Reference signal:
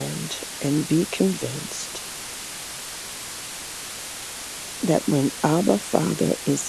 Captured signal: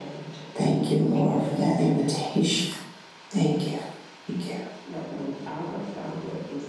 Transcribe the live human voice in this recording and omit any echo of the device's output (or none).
Thank you, Lord, for that invitation. Thank you. Thank you.